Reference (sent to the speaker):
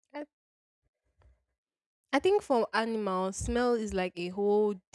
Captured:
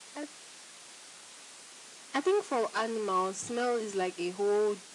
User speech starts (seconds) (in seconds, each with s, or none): none